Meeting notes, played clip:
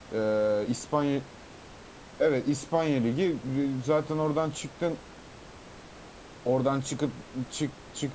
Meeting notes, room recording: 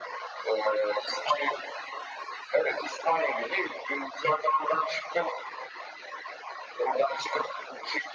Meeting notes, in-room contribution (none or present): none